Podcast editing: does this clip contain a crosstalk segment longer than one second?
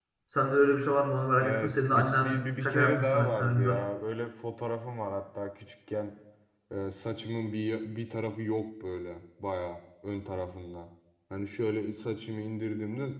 Yes, from 1.4 s

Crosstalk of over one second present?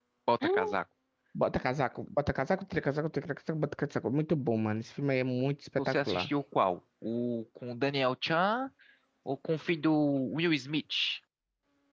No

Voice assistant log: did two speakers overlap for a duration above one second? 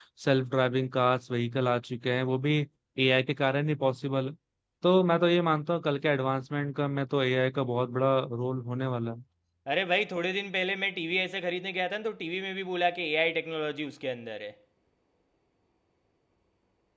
No

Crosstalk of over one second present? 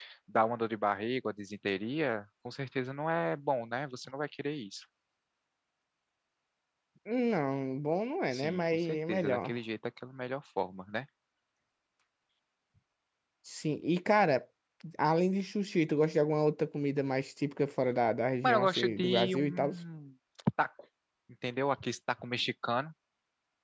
Yes, from 8.3 s

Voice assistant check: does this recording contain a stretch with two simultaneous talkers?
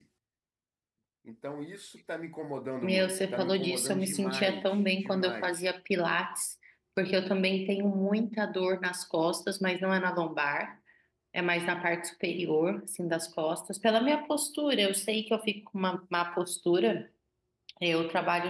Yes, from 2.8 s

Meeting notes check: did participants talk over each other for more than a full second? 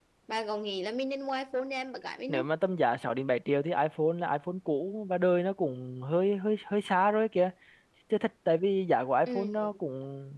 No

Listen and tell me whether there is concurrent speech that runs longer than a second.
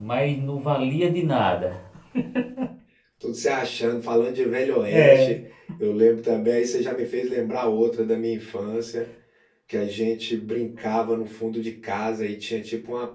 No

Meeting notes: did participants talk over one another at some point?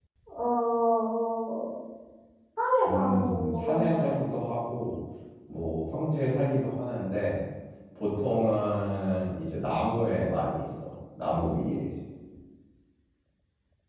Yes, from 2.9 s

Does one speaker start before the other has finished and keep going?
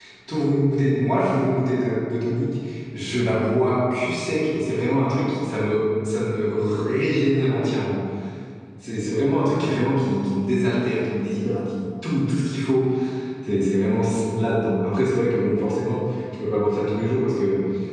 No

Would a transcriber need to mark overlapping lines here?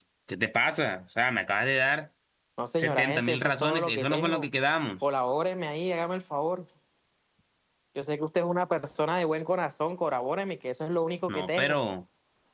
Yes, from 2.8 s

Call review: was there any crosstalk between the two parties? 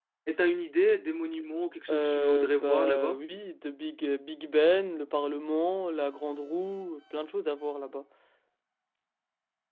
Yes, from 1.9 s

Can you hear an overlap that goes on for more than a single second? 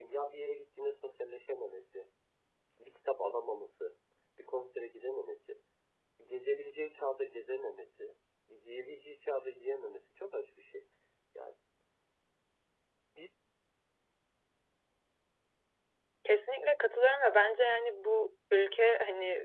No

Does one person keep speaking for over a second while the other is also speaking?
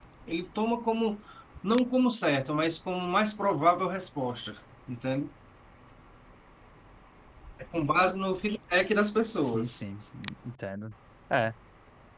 No

